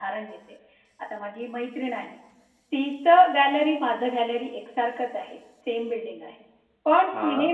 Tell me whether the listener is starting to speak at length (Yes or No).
No